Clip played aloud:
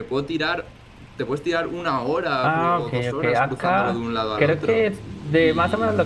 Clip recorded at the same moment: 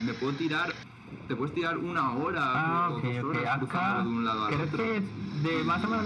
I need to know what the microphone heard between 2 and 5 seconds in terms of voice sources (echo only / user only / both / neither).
echo only